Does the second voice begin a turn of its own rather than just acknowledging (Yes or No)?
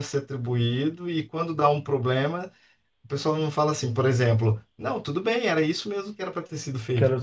Yes